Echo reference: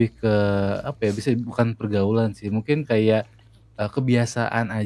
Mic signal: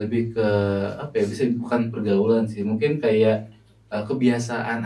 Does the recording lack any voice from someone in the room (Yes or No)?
Yes